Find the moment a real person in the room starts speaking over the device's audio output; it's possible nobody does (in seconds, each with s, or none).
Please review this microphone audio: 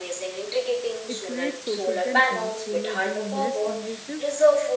1.1 s